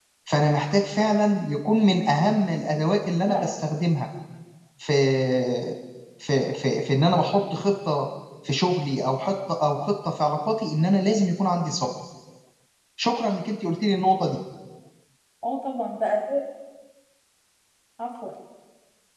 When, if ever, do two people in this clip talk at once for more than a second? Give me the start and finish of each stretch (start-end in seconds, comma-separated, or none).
none